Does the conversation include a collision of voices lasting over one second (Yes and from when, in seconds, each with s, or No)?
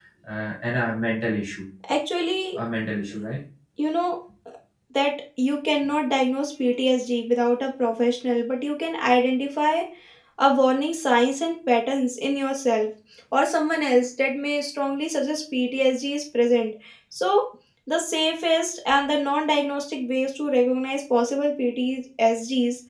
No